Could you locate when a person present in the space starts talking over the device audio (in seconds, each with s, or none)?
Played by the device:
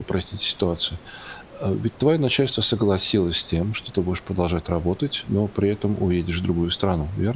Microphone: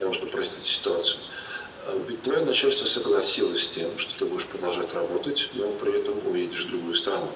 none